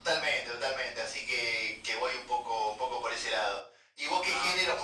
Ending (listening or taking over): listening